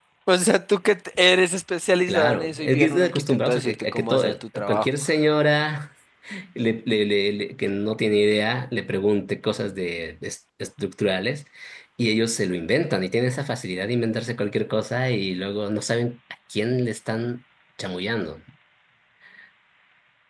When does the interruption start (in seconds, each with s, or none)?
2.1 s